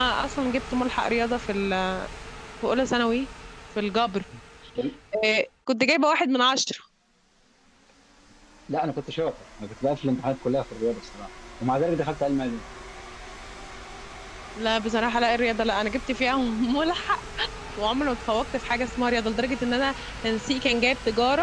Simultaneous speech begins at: none

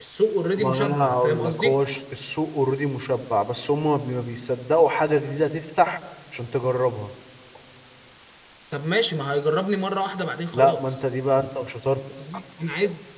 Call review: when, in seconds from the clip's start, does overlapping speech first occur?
1 s

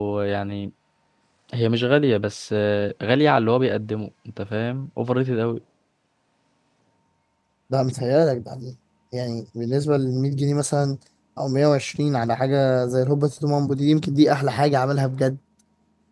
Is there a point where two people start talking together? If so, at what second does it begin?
none

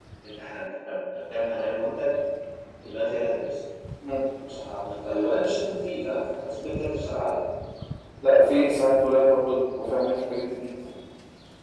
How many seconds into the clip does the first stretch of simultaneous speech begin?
none

